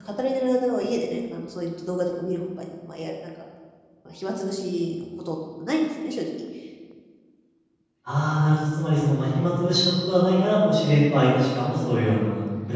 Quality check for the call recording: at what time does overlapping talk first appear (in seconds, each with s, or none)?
none